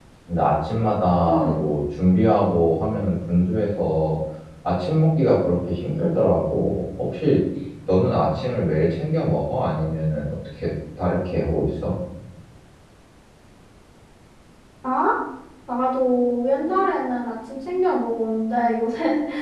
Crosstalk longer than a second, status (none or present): none